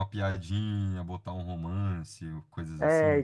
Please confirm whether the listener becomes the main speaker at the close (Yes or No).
Yes